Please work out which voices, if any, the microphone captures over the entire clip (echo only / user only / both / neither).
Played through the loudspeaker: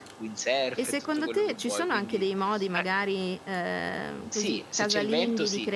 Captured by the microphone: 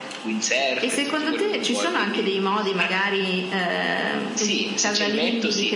echo only